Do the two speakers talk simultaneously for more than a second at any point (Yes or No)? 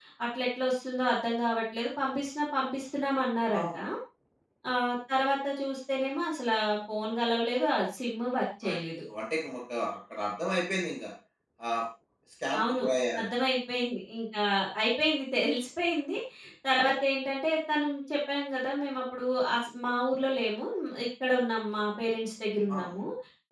No